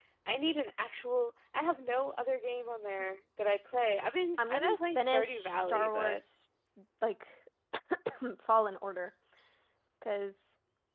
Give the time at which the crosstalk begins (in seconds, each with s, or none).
4.4 s